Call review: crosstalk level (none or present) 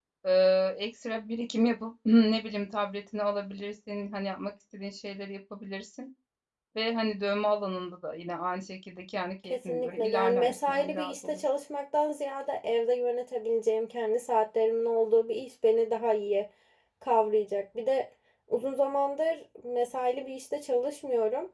present